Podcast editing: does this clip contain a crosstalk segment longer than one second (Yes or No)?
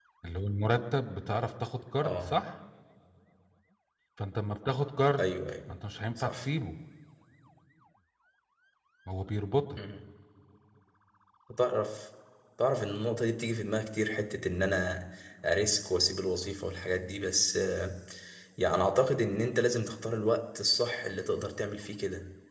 No